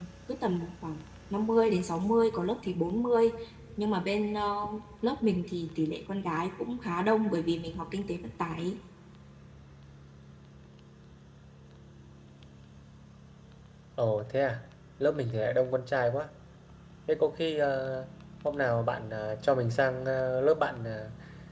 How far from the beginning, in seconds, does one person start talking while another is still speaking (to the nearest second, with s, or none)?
none